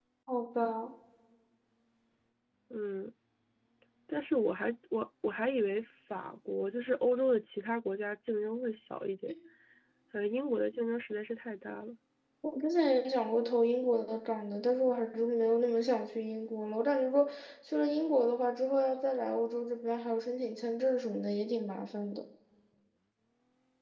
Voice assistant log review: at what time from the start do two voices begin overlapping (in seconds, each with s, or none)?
none